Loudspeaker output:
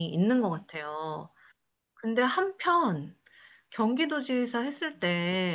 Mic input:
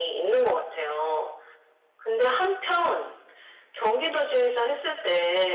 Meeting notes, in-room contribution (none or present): none